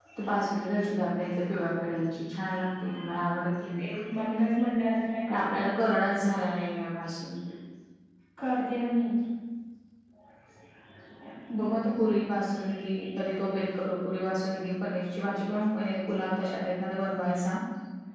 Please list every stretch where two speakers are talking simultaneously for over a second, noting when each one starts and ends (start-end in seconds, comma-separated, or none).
none